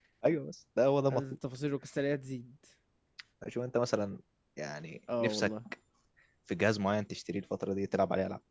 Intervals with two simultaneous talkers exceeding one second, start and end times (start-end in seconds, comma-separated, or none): none